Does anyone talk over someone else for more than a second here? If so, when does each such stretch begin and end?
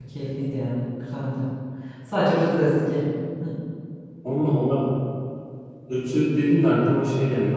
none

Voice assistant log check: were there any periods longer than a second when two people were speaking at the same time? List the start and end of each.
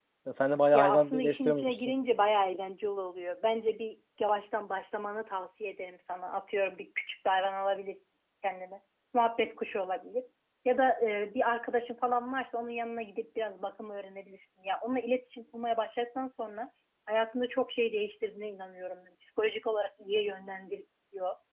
0.7-1.9

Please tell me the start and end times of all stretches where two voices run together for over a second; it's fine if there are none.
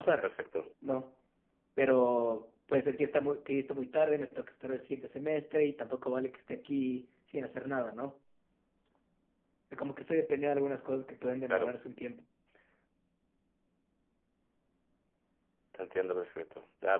none

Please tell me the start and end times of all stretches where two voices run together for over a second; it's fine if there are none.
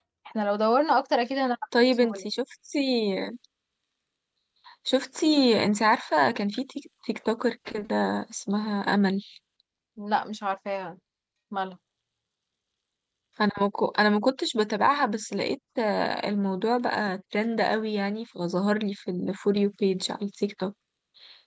none

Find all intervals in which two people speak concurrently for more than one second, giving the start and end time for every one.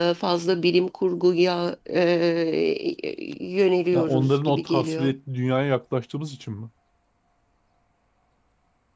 3.9-5.1

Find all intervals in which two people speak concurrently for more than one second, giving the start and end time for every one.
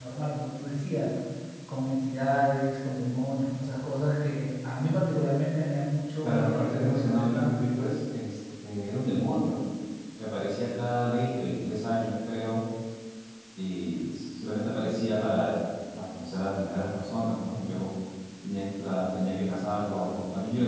6.2-7.7

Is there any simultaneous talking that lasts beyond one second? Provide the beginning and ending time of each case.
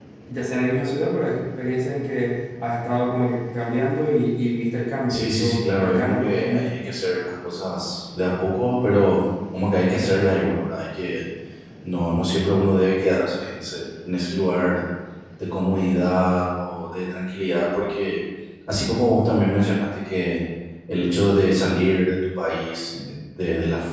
5.1-6.7

